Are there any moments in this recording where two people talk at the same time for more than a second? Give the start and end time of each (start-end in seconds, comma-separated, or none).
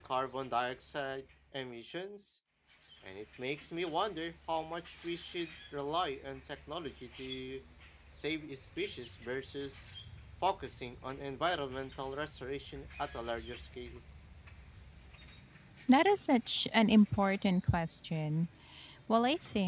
none